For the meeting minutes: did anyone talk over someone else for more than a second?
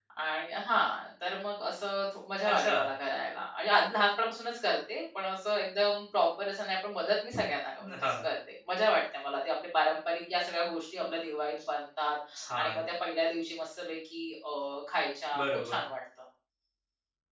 No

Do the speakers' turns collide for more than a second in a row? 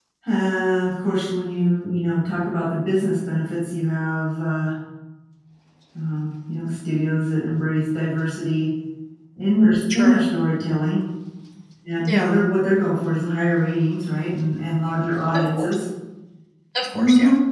No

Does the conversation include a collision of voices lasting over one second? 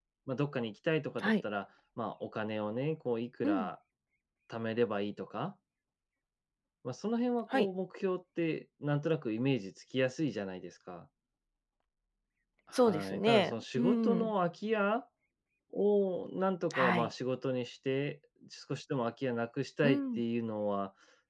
Yes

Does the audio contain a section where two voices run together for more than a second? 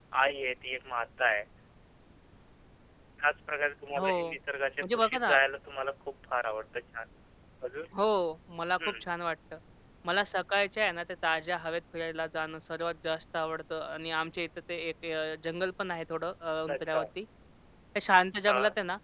No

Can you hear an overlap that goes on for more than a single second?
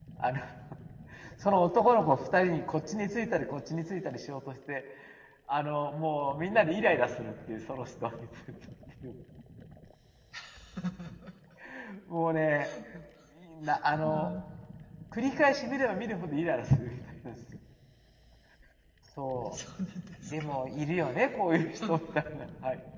No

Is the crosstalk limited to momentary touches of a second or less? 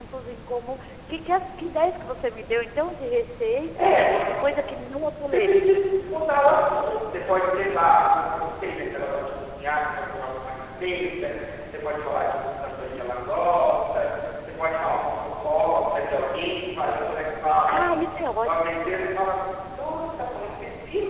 Yes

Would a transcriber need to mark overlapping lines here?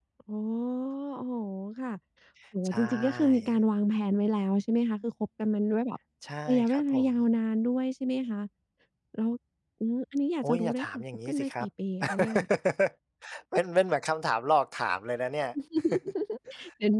Yes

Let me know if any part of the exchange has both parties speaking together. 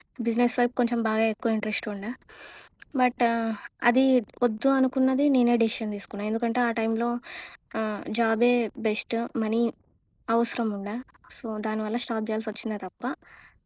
No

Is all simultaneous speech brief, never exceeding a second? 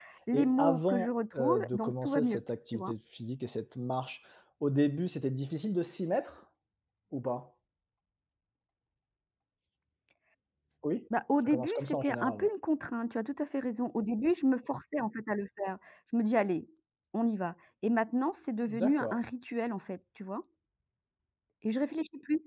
No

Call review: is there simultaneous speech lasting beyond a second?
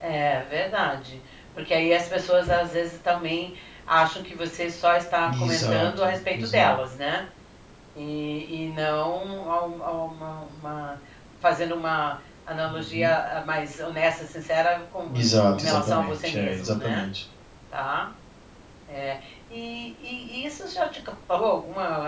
Yes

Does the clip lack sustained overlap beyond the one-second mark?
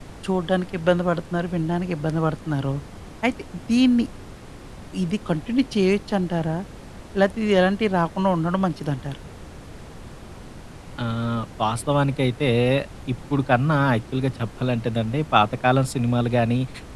Yes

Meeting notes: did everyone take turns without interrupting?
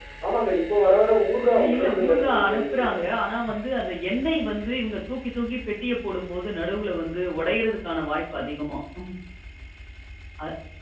No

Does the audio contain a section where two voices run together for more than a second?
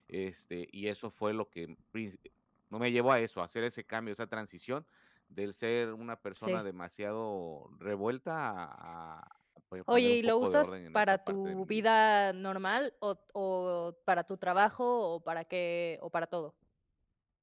Yes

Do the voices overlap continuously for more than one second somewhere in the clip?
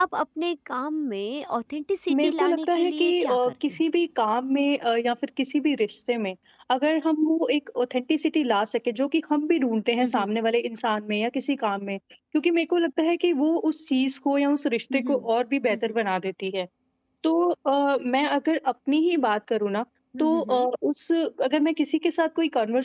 Yes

